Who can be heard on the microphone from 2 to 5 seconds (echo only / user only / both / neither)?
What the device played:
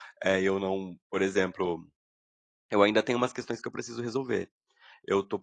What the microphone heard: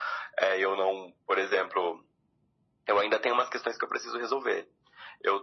echo only